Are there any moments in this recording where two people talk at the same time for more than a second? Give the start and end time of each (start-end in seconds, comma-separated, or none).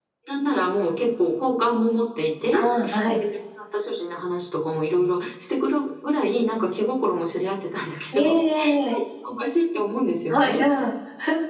none